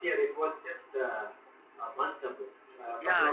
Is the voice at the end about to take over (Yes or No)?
Yes